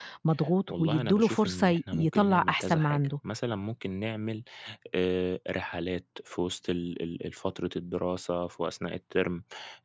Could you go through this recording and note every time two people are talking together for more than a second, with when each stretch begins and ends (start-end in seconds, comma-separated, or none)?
0.7-3.1